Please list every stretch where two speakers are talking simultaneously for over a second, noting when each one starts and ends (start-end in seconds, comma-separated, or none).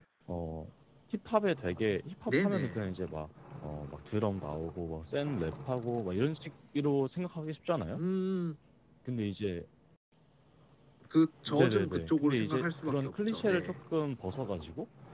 11.5-13.7